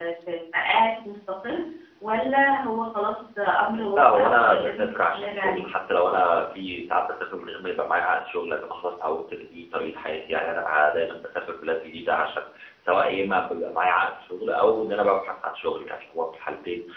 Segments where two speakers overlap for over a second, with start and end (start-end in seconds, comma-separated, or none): 4.0-5.6